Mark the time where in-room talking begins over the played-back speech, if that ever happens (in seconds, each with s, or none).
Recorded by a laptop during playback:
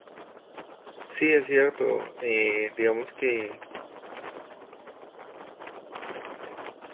1.0 s